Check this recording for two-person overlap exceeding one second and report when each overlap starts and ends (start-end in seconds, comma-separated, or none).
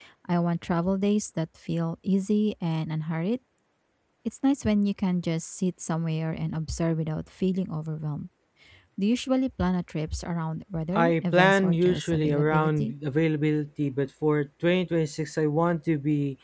11.0-12.9